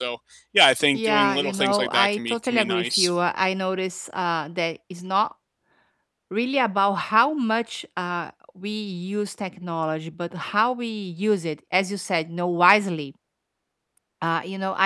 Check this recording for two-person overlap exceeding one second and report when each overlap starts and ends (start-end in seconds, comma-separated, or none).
0.9-3.1